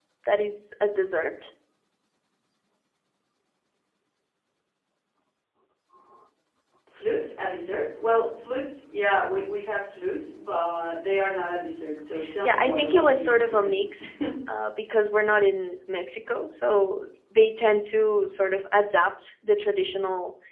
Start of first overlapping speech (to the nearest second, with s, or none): 12 s